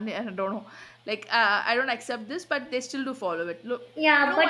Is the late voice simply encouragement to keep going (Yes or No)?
No